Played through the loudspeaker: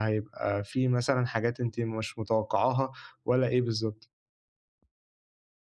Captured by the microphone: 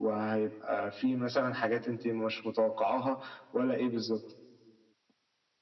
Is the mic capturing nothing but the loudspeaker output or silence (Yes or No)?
Yes